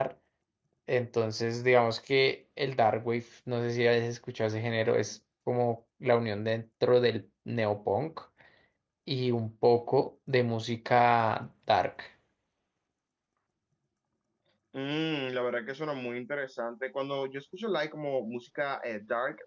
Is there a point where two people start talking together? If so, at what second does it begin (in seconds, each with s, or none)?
none